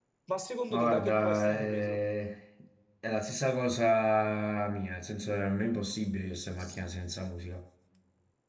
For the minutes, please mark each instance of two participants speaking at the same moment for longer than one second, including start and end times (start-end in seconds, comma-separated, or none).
0.7-2.0